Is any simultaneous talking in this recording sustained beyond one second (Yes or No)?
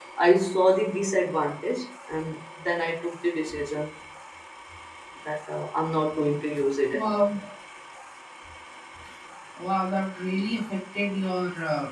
No